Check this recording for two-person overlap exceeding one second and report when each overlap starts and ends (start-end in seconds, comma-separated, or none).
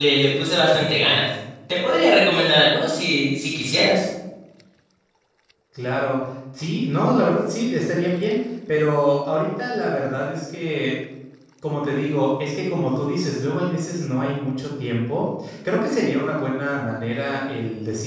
none